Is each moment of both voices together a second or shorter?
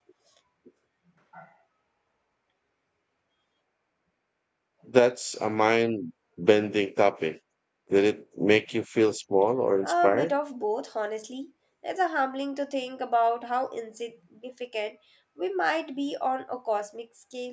Yes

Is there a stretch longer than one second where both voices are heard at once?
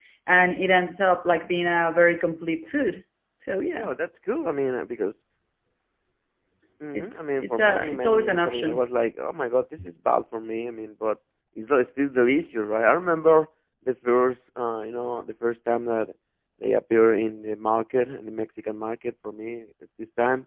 Yes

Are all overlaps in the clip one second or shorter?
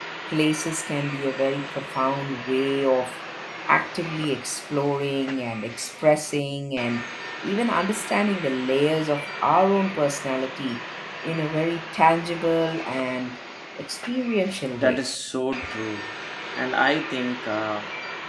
Yes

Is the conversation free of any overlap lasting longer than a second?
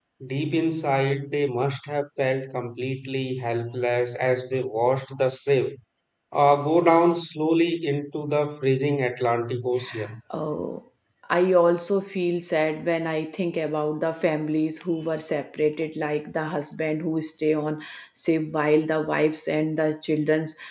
Yes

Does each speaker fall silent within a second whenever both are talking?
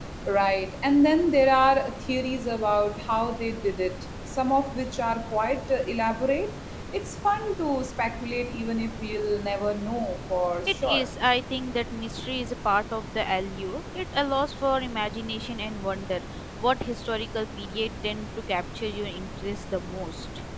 Yes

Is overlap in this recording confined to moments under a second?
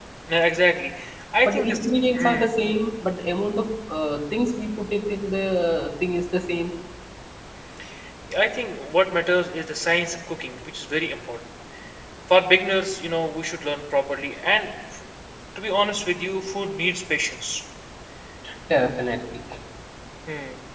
Yes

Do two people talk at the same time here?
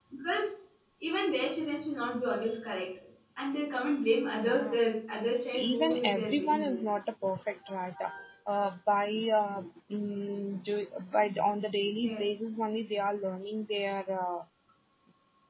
Yes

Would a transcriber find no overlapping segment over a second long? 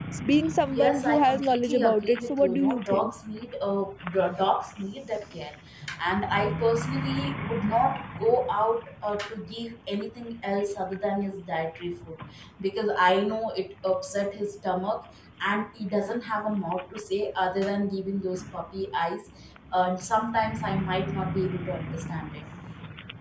No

